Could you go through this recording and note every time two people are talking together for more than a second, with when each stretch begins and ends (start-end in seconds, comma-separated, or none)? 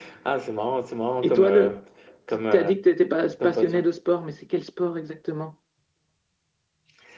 none